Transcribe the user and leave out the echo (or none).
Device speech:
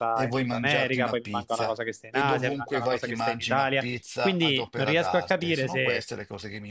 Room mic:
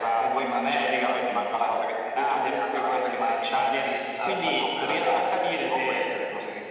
none